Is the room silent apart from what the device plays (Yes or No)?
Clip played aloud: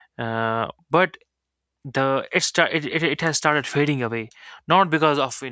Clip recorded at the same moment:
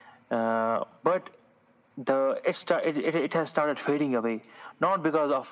Yes